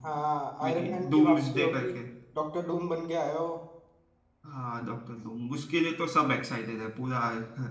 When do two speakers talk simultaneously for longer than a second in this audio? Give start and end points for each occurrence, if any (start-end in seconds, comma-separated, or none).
0.6-1.9